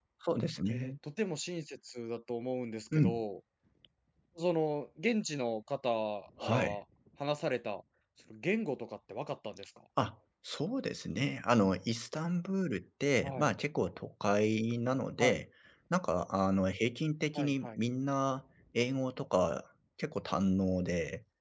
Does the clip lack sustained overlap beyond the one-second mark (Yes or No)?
Yes